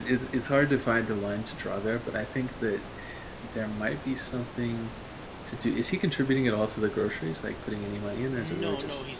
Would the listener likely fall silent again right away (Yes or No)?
No